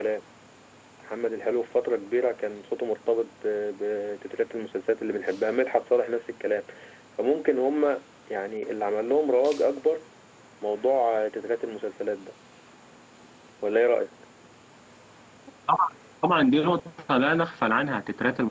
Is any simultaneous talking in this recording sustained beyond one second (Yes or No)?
No